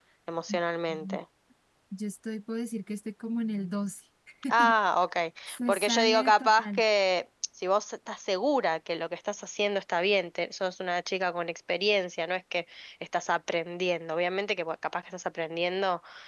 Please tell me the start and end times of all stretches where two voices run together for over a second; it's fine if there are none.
5.5-6.8

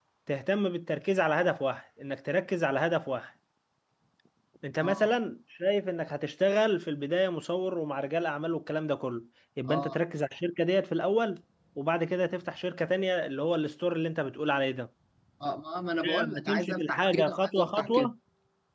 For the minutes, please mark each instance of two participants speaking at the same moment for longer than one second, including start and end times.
16.0-18.1

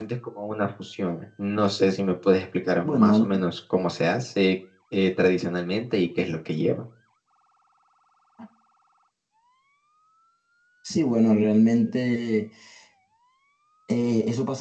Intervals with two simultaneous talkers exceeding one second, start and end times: none

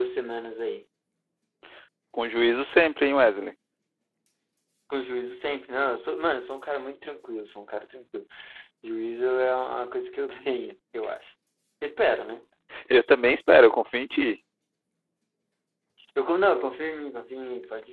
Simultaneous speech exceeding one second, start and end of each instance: none

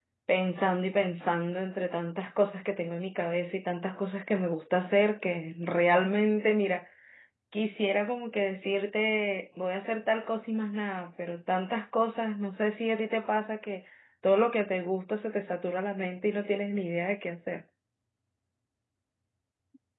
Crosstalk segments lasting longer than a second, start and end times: none

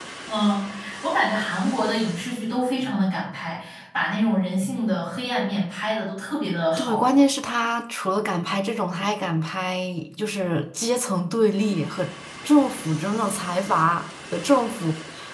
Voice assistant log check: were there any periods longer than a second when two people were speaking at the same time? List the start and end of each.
none

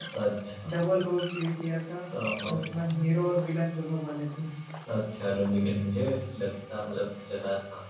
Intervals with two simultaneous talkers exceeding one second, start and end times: none

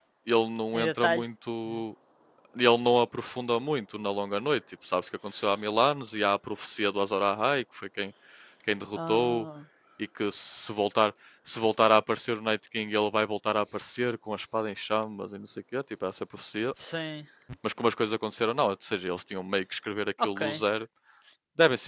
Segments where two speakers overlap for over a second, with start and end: none

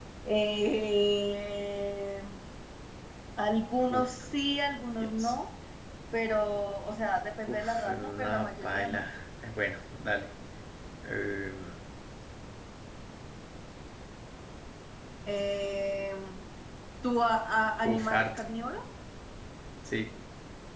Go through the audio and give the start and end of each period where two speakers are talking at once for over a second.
7.5-9.1

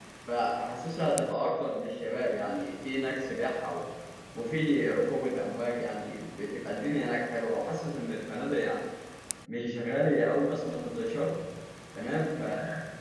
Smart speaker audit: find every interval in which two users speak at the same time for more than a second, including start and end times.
none

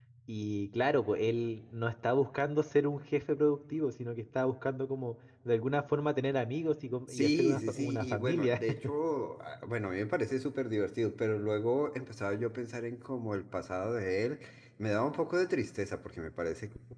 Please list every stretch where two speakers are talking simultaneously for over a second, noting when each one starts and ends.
7.1-8.6

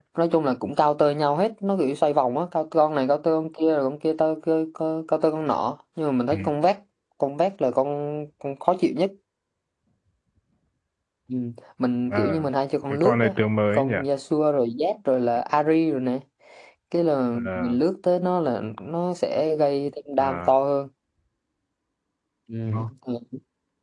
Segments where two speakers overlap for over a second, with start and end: none

